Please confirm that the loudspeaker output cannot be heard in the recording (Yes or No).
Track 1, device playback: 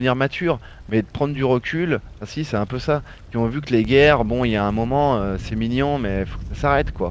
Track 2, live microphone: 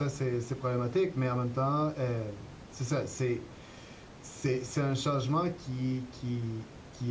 Yes